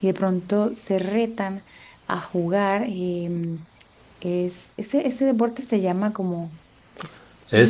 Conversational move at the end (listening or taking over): taking over